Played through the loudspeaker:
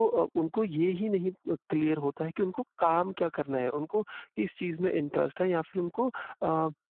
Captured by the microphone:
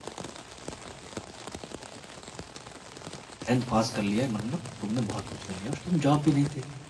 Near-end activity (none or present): present